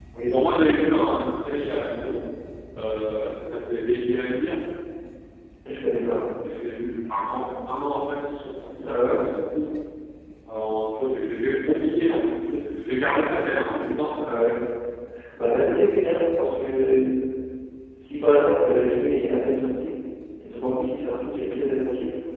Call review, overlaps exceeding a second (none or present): none